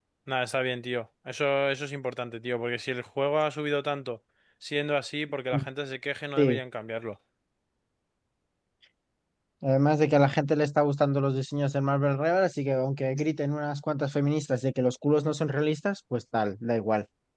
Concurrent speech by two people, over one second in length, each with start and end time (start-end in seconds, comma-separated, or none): none